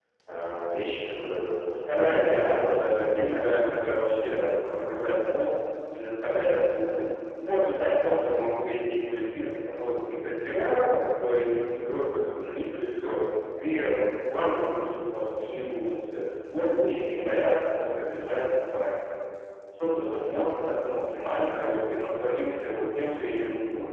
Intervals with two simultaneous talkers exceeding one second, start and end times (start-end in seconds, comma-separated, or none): 1.8-3.7